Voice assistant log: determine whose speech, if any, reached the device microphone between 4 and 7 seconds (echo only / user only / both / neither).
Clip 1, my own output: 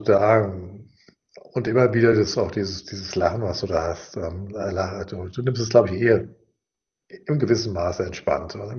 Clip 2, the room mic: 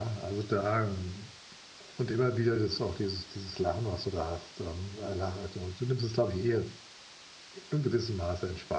echo only